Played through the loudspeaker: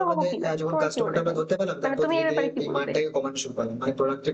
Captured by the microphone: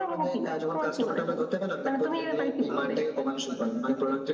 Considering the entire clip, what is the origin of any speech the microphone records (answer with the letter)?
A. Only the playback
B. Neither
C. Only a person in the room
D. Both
D